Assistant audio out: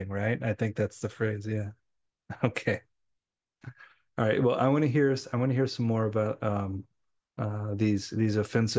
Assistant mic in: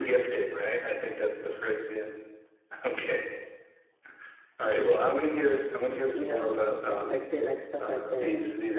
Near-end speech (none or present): present